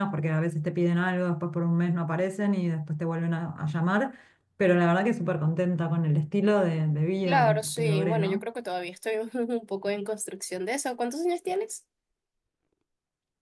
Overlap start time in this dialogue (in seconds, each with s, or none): 7.2 s